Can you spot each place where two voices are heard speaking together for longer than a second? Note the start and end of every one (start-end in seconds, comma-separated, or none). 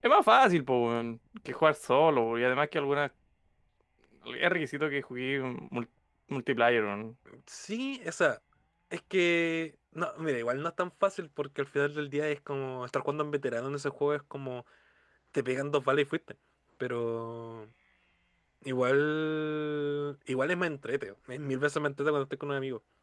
none